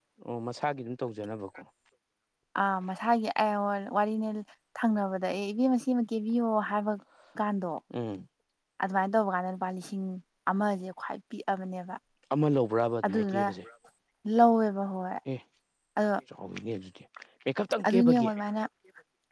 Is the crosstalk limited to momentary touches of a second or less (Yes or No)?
Yes